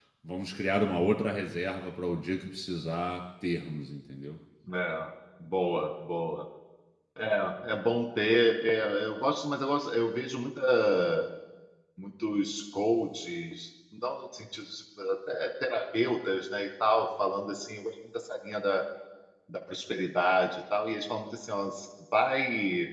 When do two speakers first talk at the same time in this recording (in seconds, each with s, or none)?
none